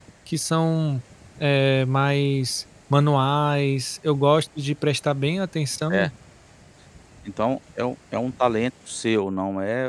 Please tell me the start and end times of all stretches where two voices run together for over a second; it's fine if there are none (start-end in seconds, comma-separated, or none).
none